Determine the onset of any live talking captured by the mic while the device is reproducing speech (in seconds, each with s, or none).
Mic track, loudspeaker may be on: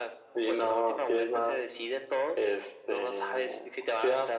none